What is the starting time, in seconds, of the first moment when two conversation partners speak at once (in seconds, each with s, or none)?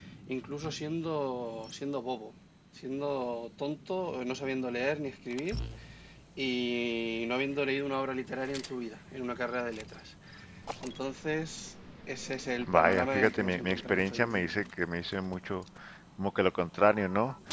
12.6 s